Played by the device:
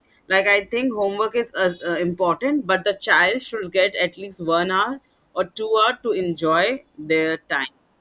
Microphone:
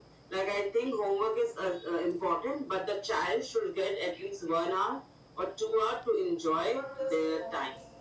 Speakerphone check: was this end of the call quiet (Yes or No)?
No